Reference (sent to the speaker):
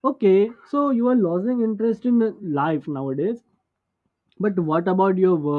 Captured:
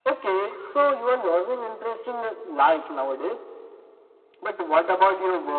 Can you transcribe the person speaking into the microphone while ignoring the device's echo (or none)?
none